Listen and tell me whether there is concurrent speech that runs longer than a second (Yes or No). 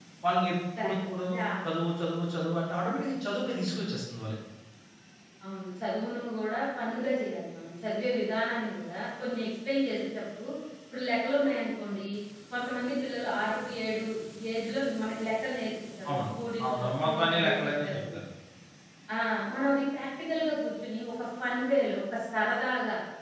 Yes